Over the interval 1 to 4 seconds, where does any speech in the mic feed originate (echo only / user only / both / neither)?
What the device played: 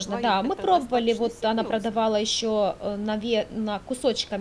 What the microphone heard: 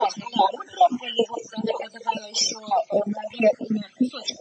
echo only